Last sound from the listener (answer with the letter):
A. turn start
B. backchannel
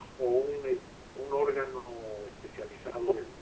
A